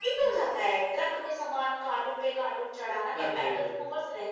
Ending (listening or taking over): listening